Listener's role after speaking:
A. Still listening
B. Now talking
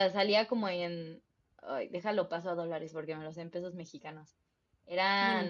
A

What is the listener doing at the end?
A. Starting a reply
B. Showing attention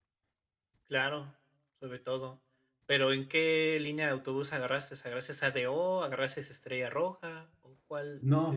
A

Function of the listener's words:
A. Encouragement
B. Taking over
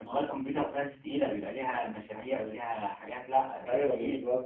B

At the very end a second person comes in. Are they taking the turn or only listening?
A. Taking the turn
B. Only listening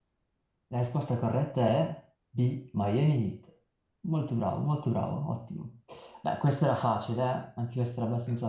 A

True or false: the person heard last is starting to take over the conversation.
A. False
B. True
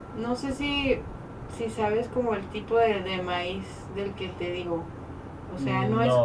A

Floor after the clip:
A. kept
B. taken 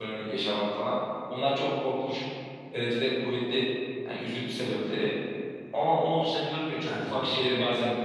A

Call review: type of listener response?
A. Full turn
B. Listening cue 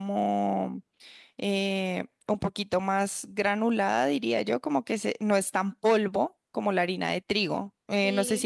B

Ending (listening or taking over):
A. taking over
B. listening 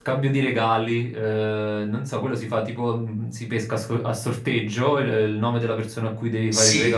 A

